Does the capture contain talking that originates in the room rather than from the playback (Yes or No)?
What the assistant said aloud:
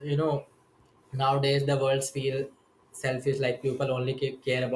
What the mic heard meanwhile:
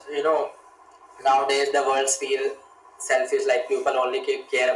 No